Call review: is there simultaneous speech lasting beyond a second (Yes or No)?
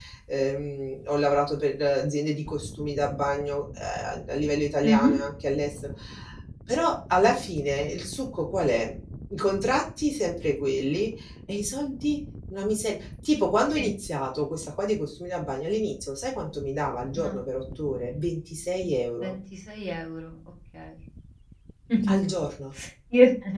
No